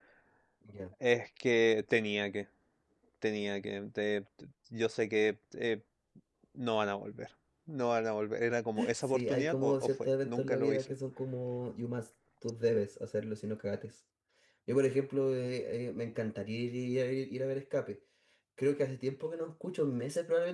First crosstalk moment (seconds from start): 9 s

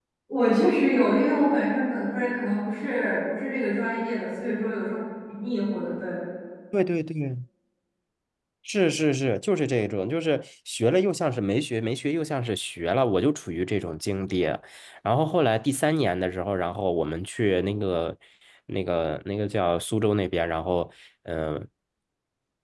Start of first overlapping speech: none

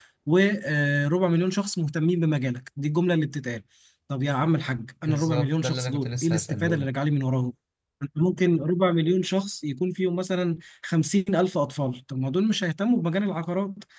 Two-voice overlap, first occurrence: 5 s

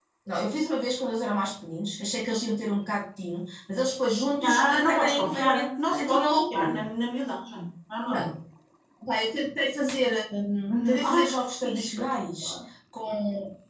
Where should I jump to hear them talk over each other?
4 s

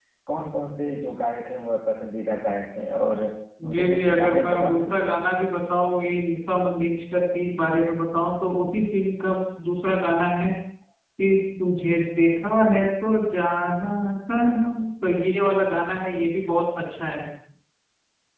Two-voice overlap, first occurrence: 4 s

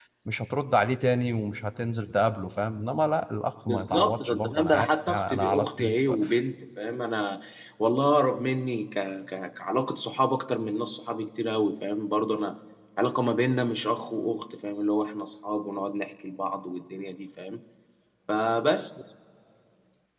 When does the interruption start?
4 s

